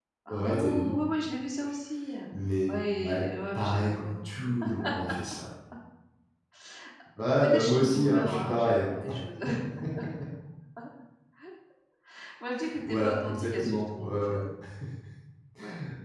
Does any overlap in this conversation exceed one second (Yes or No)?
Yes